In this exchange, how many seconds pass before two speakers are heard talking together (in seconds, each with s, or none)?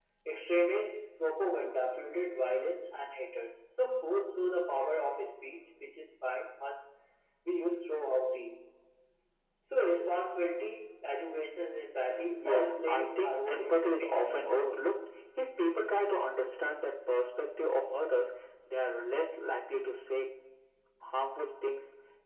12.2 s